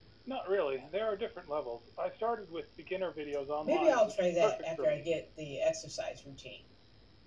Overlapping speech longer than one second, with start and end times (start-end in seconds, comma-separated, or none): 3.6-5.0